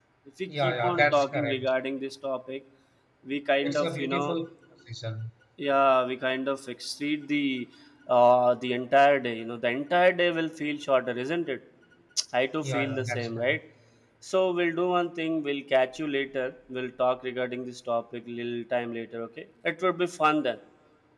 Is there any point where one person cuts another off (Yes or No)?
Yes